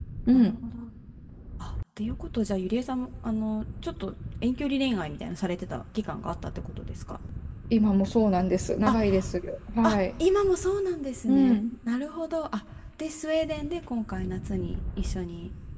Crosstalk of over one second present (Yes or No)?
No